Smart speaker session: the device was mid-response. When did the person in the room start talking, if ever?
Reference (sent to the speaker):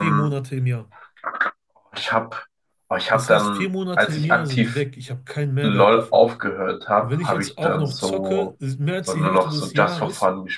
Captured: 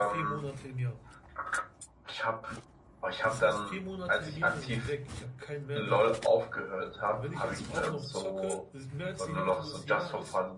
none

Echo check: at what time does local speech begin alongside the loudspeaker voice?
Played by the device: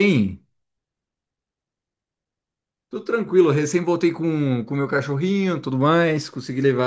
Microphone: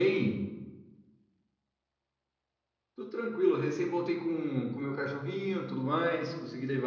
none

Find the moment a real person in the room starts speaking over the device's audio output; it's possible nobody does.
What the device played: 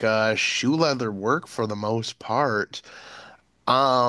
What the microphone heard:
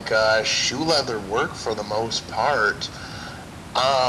none

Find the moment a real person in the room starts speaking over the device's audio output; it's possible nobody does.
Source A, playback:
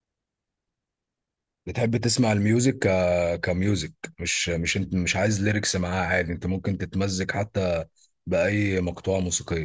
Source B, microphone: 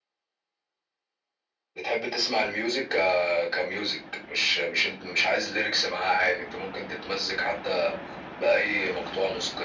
none

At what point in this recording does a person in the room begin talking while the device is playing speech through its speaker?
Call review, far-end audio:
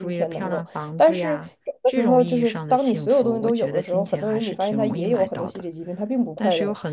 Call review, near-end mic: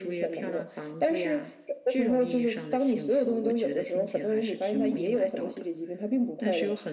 none

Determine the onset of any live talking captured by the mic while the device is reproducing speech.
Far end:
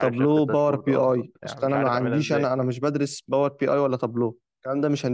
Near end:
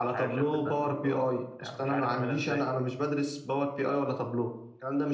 none

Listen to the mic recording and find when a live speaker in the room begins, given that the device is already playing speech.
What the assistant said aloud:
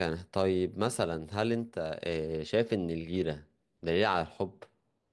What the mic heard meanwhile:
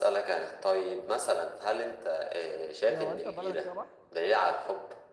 2.9 s

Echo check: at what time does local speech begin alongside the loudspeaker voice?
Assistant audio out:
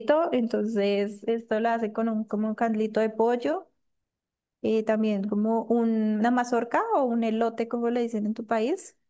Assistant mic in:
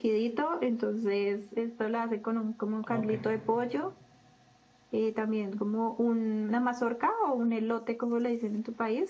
2.8 s

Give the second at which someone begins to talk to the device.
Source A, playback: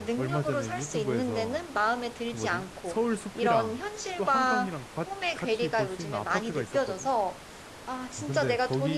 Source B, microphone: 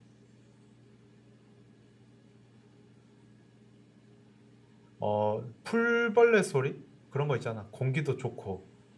5.0 s

